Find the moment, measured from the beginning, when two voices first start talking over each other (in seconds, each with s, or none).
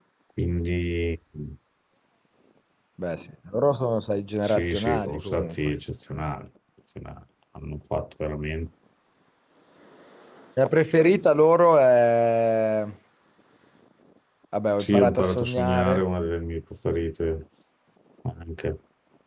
4.4 s